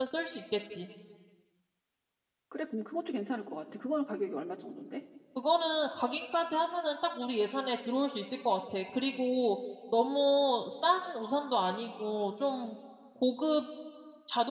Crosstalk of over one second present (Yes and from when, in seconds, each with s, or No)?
No